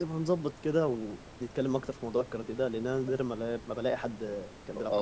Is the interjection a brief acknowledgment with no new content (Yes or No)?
No